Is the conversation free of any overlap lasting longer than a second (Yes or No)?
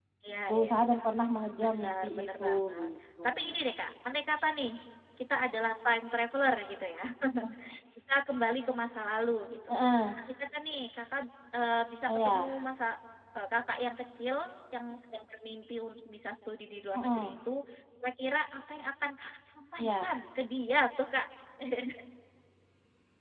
No